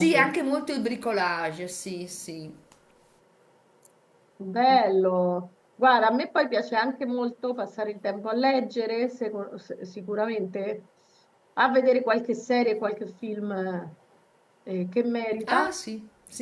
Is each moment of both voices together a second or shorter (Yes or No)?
Yes